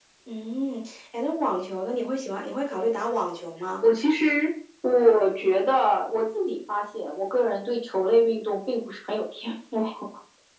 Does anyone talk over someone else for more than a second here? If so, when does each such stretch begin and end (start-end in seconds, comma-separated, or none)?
none